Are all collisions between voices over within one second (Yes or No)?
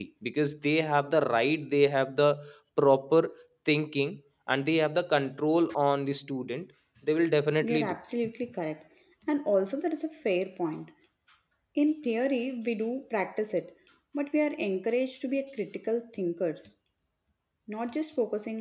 Yes